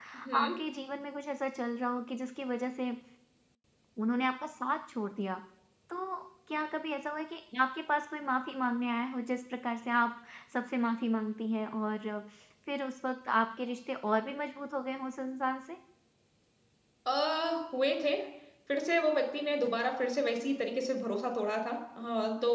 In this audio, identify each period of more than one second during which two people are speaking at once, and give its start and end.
none

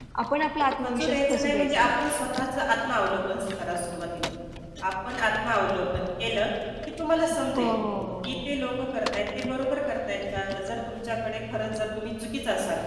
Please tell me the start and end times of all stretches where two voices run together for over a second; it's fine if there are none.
0.8-2.0

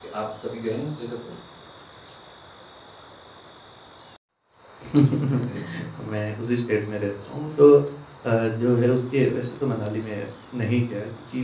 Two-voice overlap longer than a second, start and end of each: none

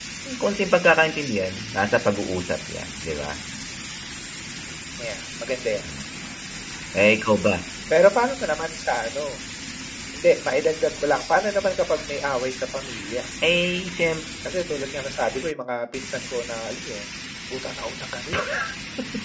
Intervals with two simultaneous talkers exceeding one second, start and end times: none

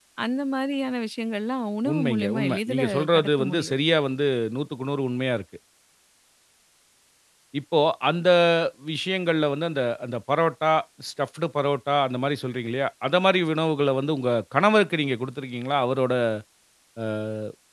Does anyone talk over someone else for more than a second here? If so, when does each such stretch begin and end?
1.9-3.7

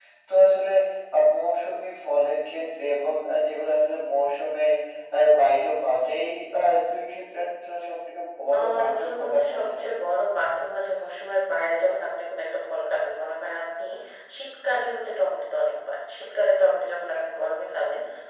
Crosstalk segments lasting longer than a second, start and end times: 8.5-9.8

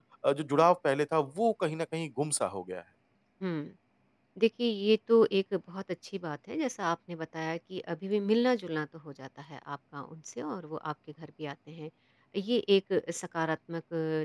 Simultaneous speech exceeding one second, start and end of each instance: none

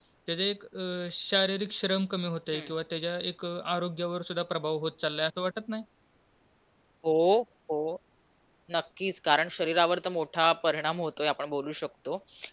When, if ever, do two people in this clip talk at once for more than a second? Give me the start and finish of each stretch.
none

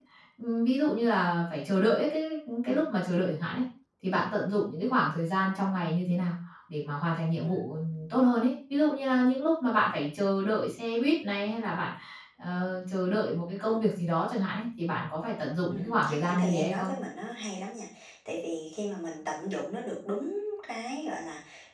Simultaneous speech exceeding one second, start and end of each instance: 15.7-16.9

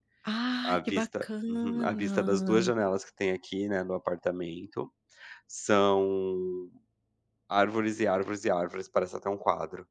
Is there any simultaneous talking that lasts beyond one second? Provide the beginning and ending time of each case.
0.6-2.7

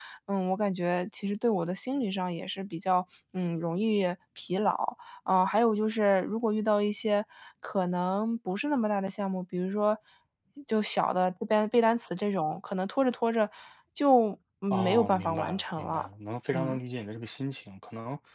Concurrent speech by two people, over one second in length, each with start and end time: 14.7-16.1

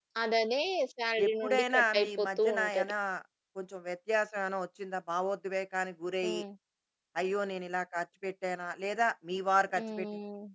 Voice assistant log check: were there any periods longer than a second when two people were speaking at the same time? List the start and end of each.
1.2-2.9

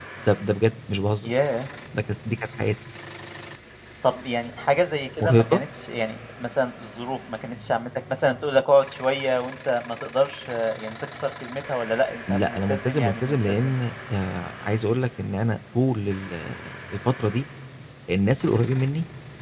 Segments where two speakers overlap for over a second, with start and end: 12.3-13.7

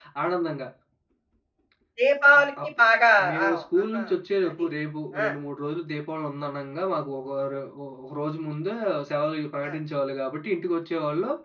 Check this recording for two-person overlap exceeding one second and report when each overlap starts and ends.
none

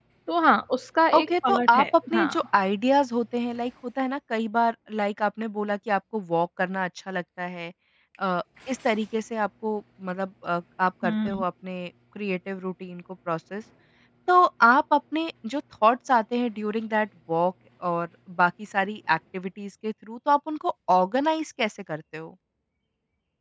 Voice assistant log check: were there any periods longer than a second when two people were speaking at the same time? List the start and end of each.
1.1-2.4

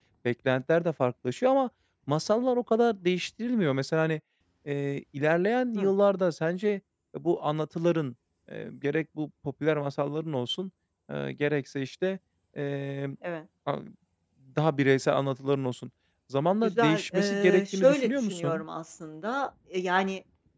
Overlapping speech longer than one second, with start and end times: 16.6-18.6

